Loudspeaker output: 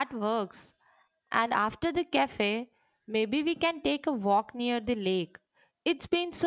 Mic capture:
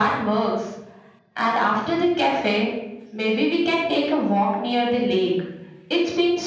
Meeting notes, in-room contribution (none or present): none